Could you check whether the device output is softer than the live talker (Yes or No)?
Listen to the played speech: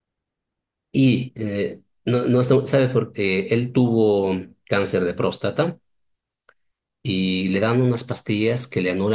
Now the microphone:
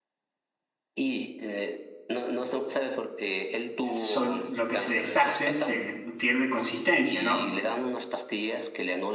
Yes